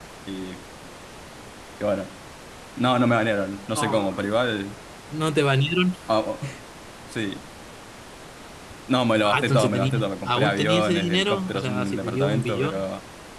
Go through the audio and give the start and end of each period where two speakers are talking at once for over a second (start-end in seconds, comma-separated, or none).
9.2-12.7